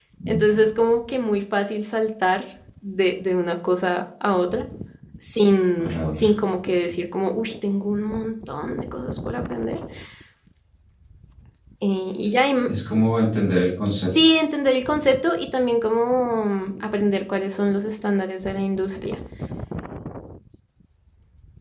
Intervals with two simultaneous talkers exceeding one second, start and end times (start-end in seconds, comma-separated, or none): none